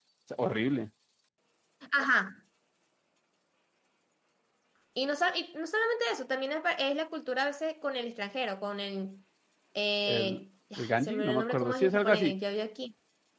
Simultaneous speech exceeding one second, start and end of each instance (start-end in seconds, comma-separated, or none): 10.8-12.3